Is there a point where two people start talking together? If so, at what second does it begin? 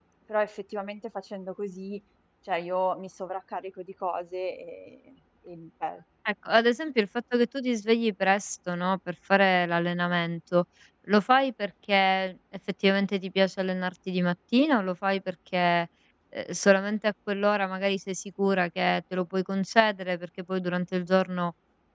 none

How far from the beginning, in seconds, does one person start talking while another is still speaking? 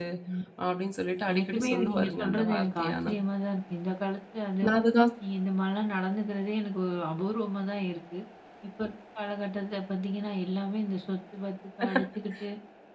1.3 s

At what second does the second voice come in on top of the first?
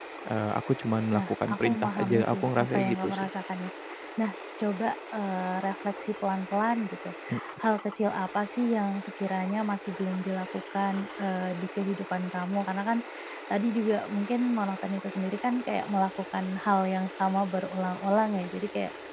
1.1 s

